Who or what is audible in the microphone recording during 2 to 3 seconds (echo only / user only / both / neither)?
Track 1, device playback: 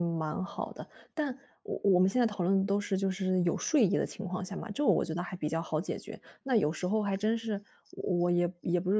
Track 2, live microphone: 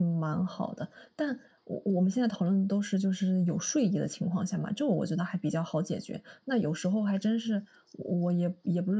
echo only